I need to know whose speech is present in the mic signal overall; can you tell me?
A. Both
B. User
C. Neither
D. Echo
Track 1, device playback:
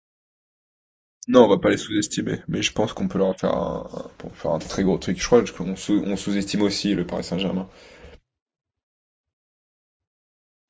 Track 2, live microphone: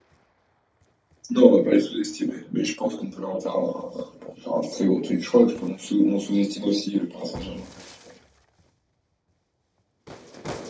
D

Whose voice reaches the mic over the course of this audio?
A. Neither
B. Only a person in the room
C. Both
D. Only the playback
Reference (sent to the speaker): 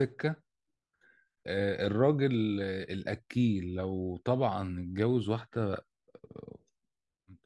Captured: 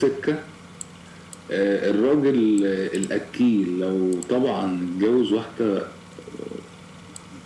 D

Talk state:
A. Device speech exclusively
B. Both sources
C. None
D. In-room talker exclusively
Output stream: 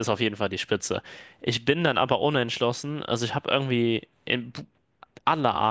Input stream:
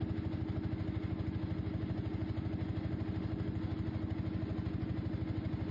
C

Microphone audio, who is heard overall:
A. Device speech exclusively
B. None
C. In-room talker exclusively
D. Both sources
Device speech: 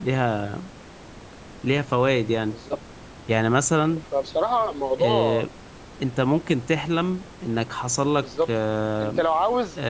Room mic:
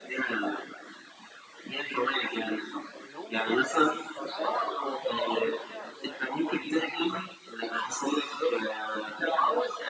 D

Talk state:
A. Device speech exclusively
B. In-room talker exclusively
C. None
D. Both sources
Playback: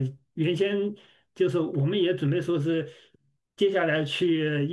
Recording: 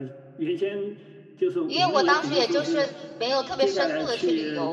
D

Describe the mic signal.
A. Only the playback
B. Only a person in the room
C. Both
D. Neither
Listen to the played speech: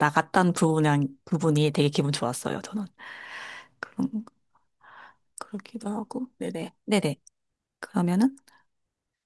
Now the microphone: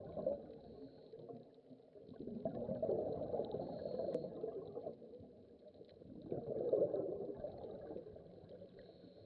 D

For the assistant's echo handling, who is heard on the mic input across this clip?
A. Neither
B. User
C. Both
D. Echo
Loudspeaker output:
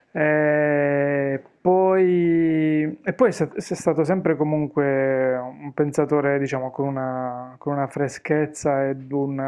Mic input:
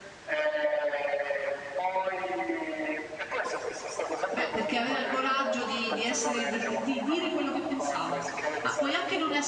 C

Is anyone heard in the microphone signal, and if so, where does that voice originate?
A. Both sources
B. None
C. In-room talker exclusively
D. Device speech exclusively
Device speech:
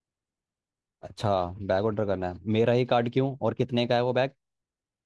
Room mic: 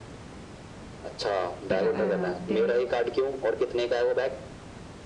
A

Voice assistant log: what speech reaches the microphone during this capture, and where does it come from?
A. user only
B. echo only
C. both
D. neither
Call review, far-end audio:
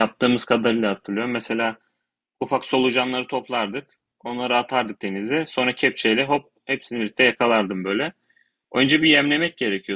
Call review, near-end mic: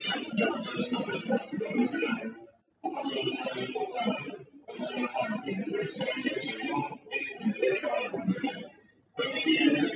B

